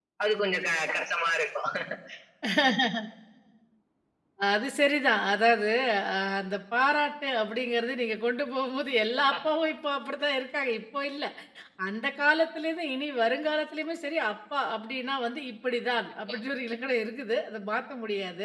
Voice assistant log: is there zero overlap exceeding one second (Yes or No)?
Yes